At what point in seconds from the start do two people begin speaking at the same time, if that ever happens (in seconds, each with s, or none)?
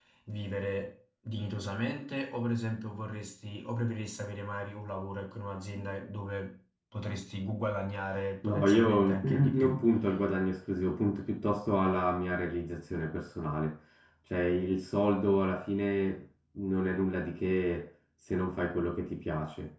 8.4 s